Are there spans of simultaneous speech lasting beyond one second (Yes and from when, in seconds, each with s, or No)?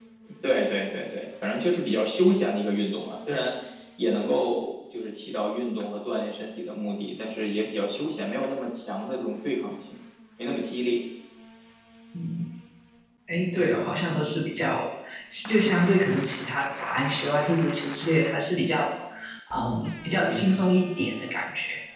No